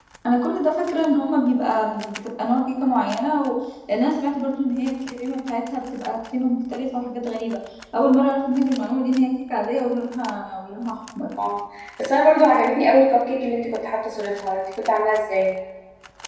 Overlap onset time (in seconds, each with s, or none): none